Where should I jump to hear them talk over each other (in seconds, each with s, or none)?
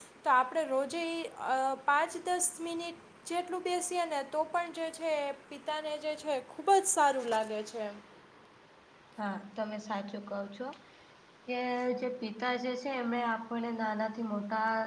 none